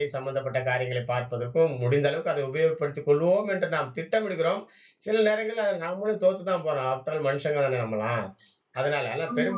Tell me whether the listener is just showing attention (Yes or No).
Yes